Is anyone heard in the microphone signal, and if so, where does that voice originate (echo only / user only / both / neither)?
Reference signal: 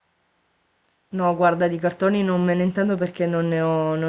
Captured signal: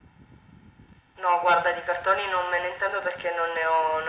echo only